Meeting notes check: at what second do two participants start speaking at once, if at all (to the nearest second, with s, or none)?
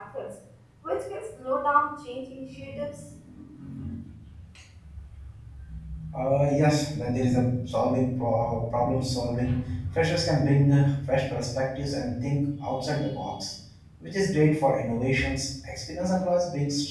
none